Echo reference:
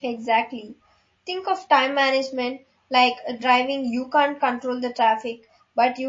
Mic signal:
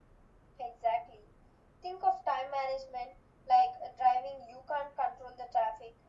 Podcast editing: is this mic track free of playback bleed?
No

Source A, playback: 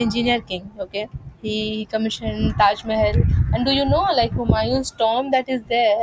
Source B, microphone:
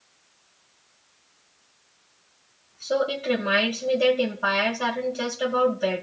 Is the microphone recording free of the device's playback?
Yes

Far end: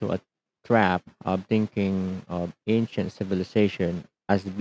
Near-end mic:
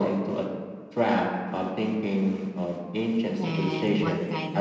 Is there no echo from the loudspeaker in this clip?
No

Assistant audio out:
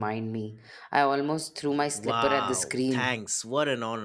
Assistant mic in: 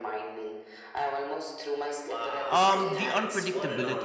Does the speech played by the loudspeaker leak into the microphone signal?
Yes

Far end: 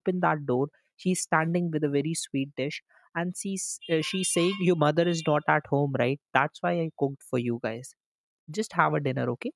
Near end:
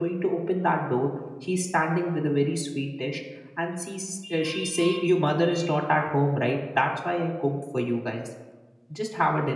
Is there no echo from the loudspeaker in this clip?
No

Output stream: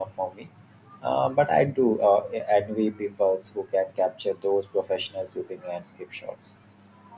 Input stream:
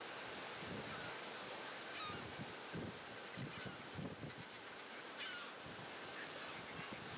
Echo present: No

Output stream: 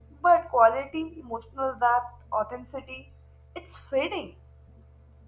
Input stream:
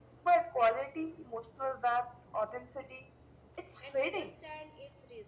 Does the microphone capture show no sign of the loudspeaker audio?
No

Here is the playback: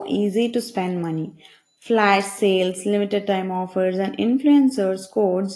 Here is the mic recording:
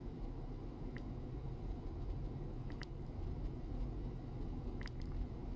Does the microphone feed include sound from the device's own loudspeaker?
No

